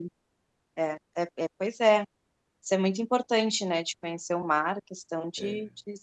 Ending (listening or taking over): listening